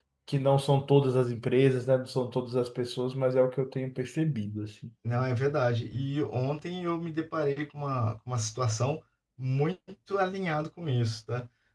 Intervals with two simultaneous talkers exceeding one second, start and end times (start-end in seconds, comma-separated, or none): none